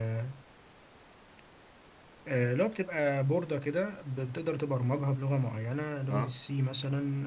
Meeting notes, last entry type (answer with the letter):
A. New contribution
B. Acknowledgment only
B